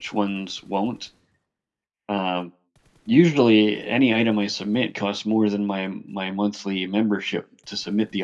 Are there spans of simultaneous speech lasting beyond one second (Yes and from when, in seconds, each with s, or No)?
No